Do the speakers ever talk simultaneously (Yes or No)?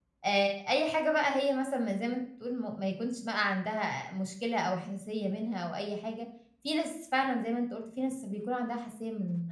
No